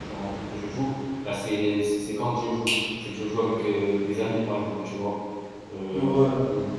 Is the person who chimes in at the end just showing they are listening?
Yes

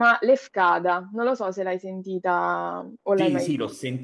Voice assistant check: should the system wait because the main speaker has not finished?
No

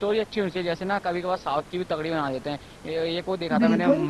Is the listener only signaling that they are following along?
Yes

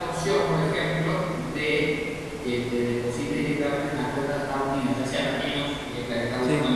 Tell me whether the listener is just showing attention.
Yes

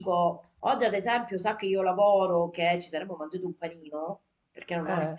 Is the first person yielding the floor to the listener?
No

